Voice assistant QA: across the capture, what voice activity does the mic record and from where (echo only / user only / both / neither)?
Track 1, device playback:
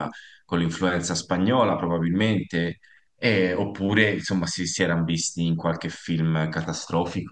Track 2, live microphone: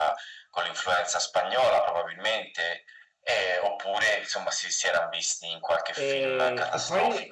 both